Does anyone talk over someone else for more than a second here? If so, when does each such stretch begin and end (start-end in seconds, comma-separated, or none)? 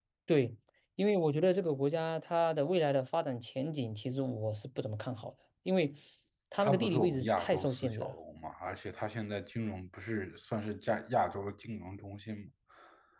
6.6-8.1